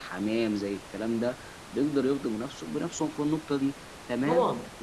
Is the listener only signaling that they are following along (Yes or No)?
Yes